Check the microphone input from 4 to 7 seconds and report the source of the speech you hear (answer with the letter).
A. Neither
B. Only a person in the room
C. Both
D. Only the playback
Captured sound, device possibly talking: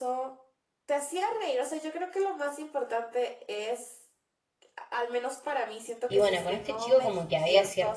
C